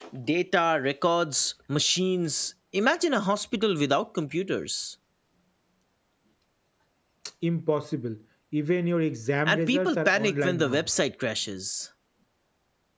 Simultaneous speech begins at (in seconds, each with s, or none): 9.5 s